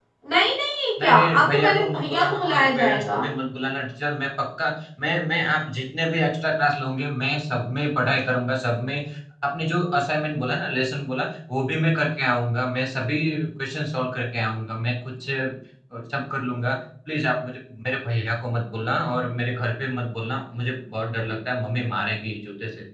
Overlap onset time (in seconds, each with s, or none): 1.0 s